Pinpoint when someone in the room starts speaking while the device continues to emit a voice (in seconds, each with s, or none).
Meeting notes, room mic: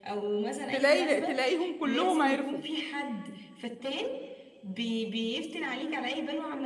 0.7 s